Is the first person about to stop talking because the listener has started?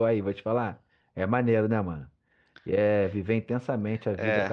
Yes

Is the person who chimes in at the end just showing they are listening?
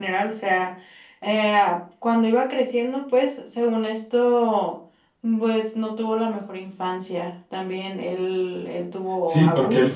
No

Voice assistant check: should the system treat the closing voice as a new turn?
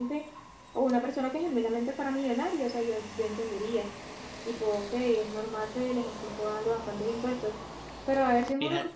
No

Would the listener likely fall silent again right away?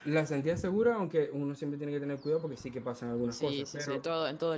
No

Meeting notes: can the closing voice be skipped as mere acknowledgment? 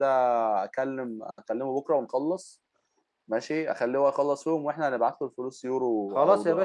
No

